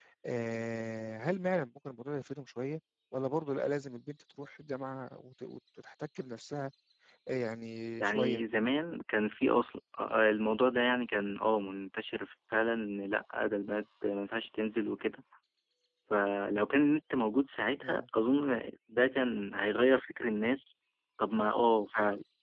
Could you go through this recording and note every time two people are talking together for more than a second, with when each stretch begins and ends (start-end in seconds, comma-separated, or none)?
none